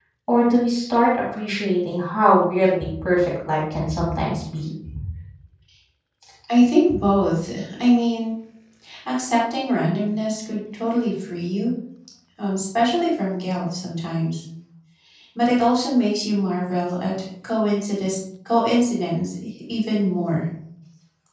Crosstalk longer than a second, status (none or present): none